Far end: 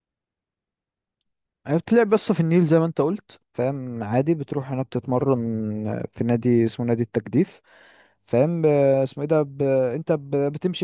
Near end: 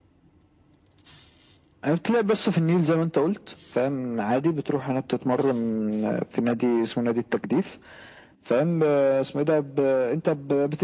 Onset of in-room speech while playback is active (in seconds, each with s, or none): none